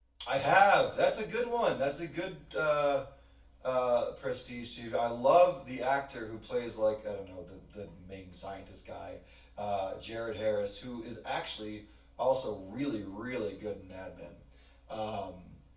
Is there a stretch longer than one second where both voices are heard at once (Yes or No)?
No